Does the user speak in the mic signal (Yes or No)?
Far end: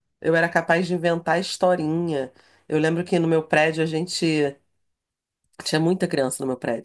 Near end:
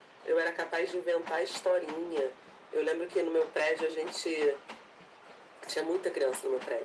No